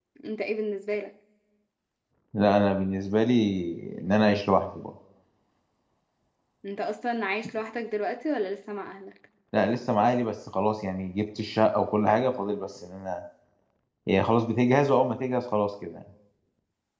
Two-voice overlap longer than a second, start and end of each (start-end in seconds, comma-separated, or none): none